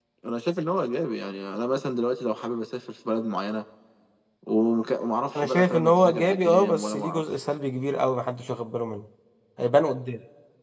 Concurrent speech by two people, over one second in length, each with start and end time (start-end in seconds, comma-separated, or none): 5.4-7.2